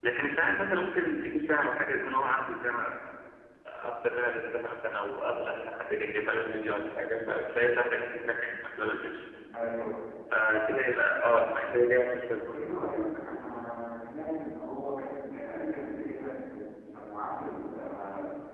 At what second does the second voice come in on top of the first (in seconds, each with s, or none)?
none